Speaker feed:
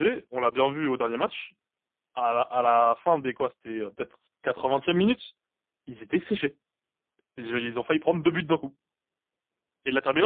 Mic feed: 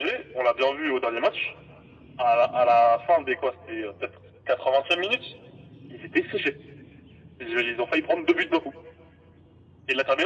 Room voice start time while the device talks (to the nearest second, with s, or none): none